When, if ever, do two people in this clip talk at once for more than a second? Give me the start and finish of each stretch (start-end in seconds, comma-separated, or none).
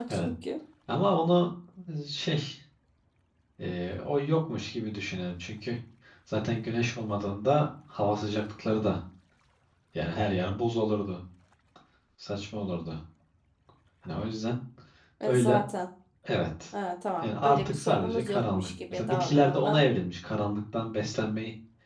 17.2-19.8